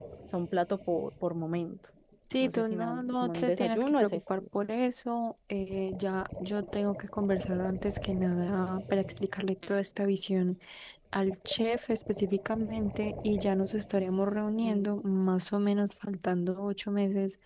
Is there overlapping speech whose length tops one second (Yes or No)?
Yes